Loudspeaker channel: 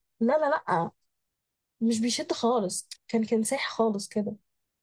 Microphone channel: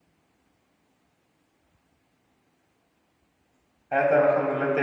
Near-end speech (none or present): present